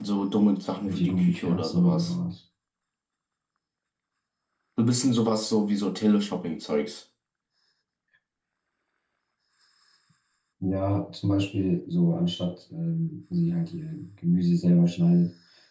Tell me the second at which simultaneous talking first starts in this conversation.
0.8 s

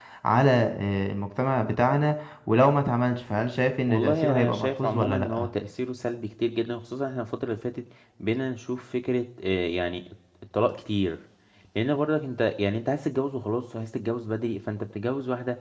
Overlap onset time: 3.9 s

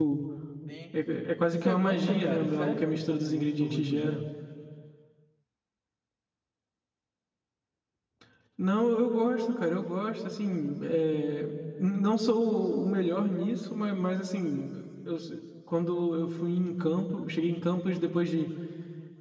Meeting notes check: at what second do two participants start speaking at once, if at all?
1.6 s

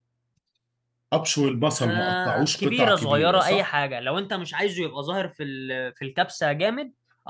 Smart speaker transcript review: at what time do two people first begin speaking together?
1.8 s

